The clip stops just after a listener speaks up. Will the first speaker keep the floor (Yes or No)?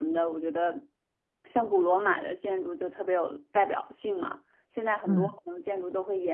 Yes